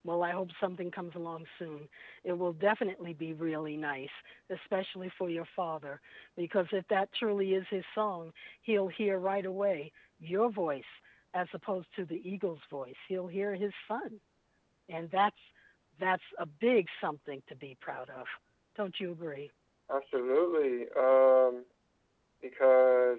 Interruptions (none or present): none